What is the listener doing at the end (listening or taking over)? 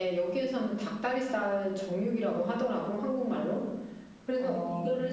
listening